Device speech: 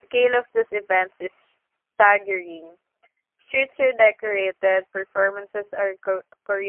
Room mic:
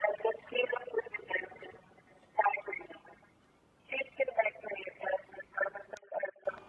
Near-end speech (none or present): none